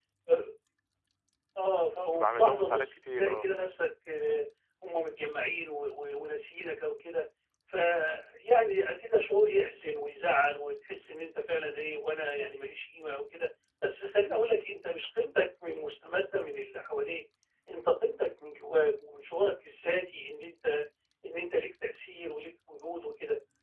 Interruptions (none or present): present